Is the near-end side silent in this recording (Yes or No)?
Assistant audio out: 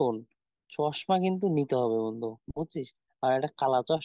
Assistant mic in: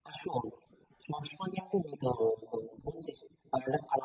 Yes